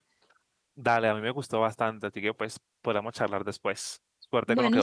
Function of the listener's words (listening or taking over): taking over